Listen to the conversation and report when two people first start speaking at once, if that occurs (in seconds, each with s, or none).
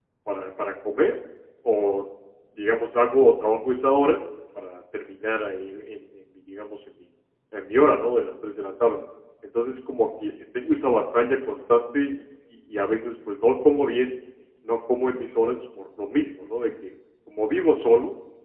none